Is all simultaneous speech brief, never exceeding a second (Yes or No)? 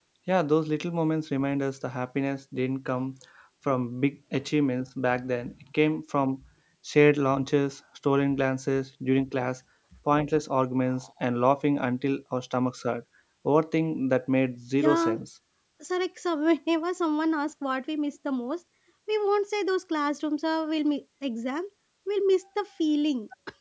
Yes